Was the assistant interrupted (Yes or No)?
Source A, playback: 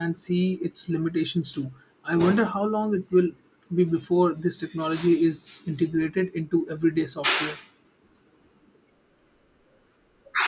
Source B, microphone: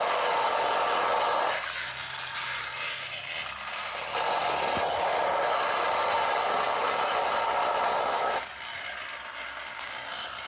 No